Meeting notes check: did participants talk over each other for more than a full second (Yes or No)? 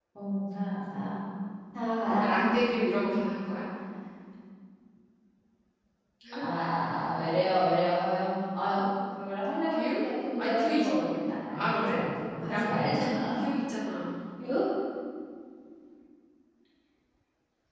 Yes